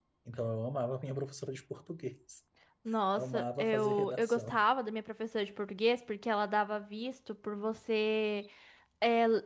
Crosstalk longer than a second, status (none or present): present